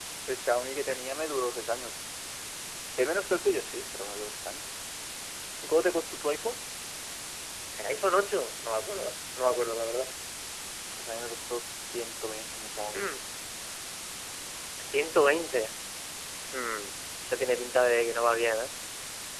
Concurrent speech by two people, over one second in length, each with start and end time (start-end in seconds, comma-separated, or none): none